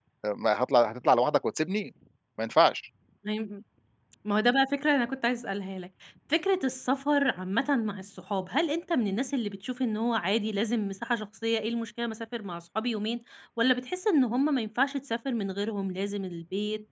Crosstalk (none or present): none